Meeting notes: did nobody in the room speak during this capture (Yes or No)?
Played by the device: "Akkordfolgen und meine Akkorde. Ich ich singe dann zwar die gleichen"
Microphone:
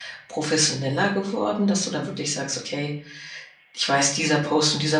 No